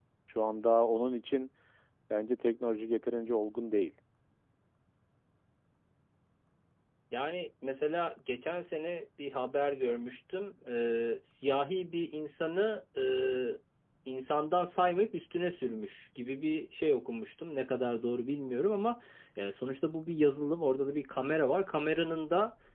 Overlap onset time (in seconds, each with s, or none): none